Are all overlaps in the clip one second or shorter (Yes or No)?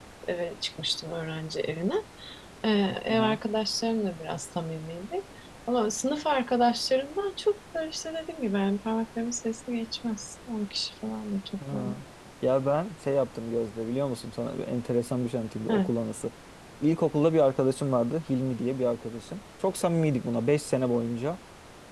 Yes